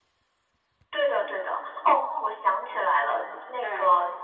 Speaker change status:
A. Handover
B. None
B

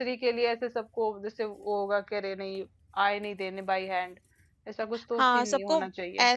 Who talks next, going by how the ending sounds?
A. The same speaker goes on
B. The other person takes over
B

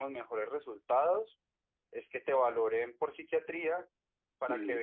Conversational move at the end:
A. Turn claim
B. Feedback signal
B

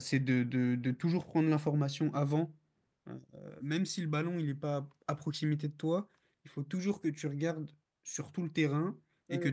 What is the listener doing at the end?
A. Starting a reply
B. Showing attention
B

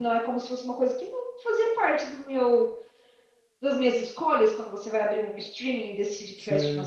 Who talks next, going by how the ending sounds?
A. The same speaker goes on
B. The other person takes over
A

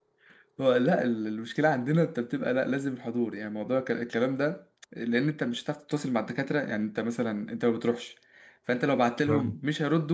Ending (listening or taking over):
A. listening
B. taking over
A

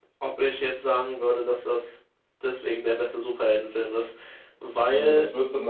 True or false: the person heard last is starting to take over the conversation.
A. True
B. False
A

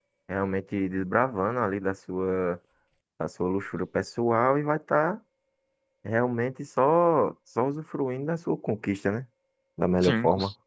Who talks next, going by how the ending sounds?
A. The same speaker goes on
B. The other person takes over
B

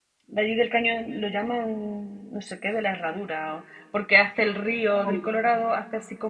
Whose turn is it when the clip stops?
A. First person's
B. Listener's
A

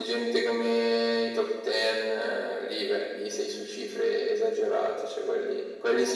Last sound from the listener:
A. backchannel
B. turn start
A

